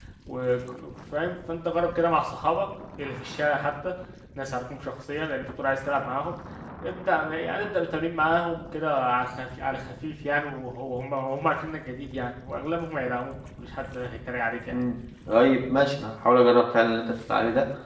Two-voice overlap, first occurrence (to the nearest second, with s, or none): none